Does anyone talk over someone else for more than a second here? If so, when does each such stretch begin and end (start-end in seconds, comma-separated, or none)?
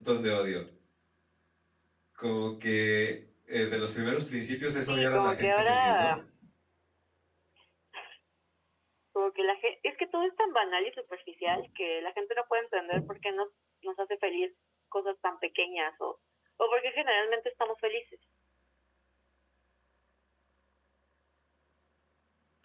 4.9-6.1